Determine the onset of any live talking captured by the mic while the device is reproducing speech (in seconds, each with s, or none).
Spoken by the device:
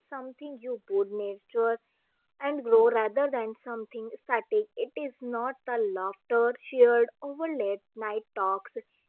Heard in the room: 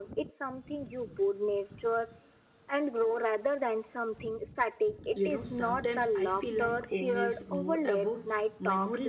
5.1 s